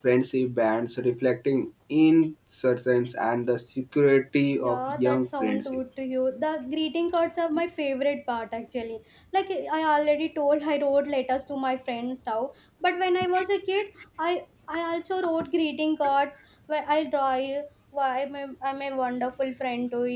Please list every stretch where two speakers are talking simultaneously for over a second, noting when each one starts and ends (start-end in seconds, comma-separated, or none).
4.6-5.8